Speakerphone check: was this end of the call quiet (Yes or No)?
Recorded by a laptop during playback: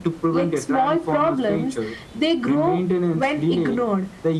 Yes